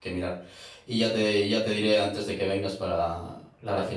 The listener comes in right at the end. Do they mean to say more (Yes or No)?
Yes